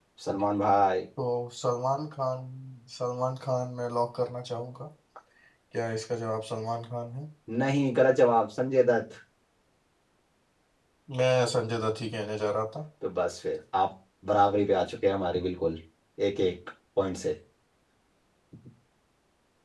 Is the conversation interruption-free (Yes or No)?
Yes